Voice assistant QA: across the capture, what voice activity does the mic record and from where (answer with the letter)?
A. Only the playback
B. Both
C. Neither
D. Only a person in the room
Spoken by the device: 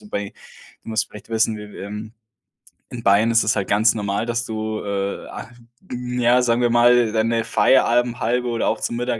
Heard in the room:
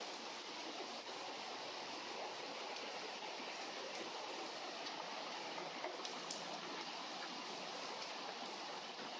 C